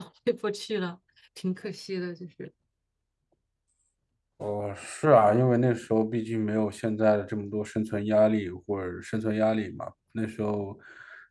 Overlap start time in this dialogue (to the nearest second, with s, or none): none